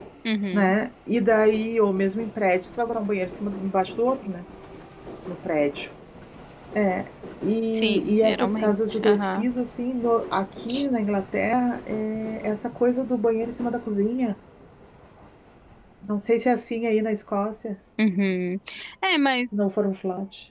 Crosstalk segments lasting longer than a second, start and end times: 7.7-9.5

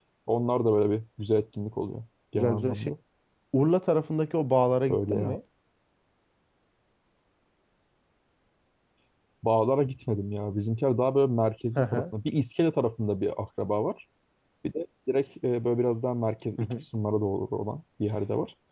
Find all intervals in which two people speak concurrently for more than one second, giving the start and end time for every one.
none

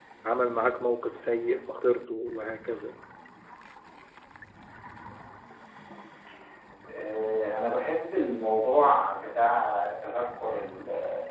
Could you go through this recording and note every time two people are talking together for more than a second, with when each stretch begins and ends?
none

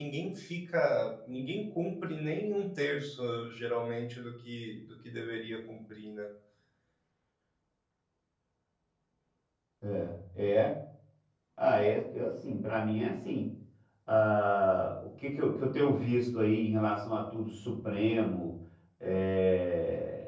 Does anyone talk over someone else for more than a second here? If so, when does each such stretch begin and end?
none

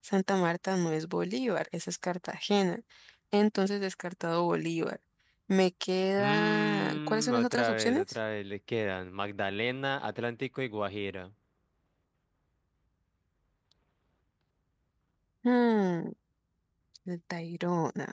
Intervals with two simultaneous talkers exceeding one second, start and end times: 6.2-8.1

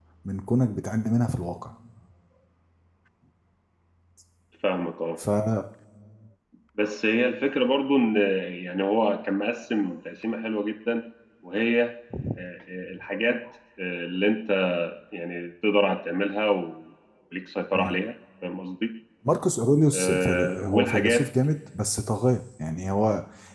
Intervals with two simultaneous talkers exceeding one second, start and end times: 19.9-21.3

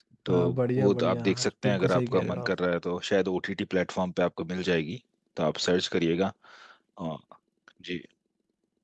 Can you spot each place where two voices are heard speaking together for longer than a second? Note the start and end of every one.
0.8-2.5

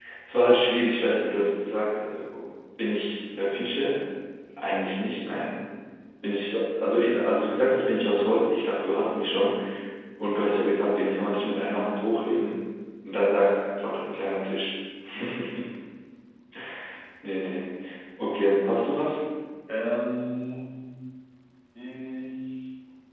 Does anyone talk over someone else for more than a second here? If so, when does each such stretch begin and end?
none

